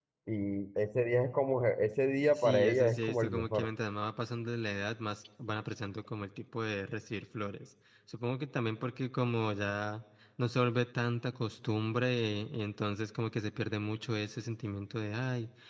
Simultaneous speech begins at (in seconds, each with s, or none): 2.2 s